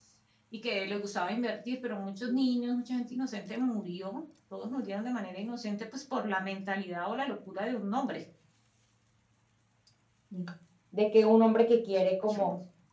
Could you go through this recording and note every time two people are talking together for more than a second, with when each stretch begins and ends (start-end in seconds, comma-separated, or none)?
none